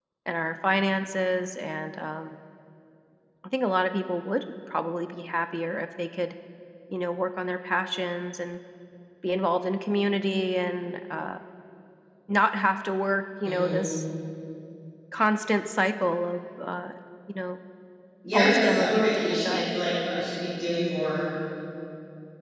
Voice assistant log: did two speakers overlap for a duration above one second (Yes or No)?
Yes